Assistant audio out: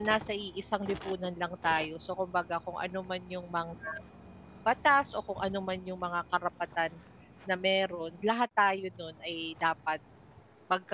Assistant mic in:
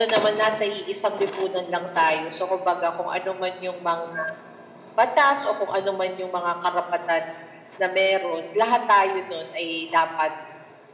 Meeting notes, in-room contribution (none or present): none